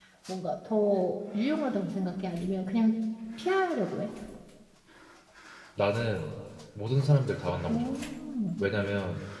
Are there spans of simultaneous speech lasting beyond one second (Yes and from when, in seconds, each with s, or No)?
No